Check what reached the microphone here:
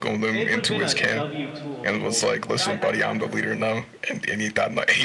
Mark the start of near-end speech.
0.3 s

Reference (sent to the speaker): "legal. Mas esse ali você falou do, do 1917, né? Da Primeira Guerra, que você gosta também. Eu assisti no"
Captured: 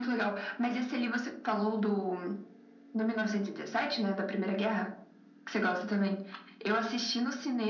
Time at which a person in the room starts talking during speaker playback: none

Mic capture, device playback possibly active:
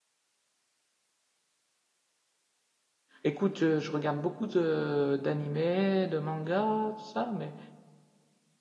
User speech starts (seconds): 3.2 s

